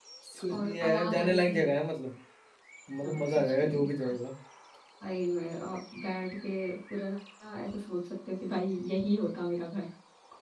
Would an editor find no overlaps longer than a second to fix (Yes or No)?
No